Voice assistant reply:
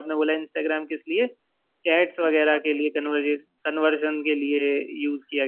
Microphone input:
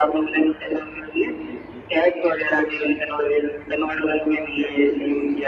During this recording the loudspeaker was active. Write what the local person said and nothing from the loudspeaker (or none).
none